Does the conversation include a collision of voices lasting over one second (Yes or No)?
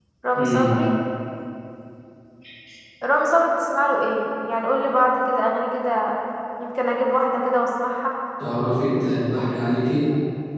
No